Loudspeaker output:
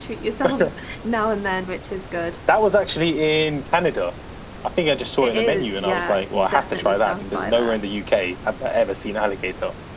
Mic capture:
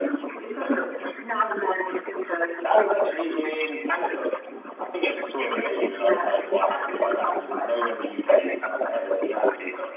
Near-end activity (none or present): none